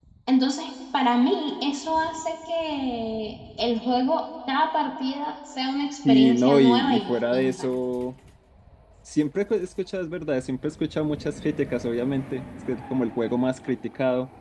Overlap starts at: 6 s

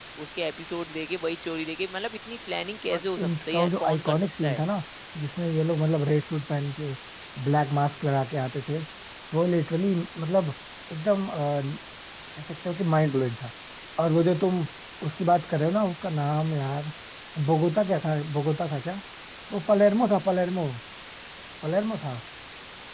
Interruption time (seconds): 3 s

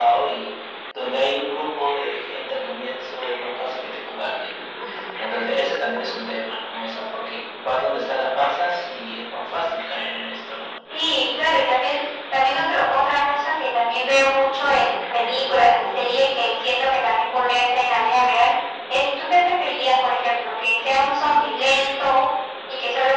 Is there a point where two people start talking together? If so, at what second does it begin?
none

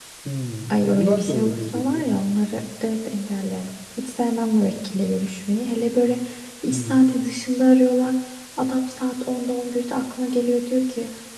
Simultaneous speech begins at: 1 s

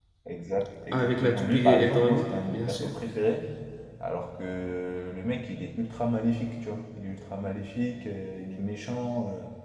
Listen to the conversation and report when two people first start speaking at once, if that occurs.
1 s

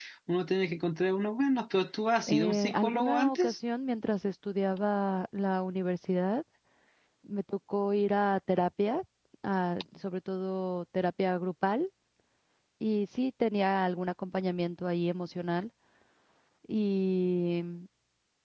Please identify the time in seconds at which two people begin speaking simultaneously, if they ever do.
2 s

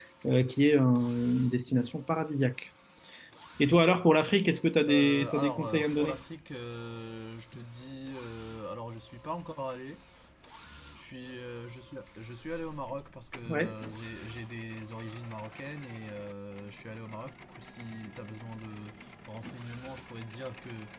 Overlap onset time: 5 s

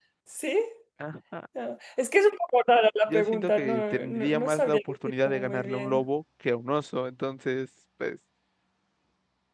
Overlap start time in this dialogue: 3 s

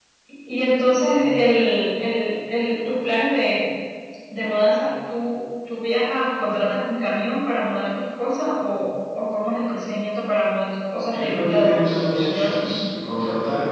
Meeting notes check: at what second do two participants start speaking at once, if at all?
11 s

